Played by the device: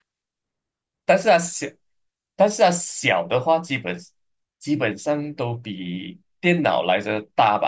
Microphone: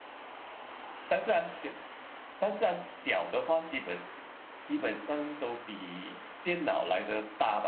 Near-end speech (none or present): none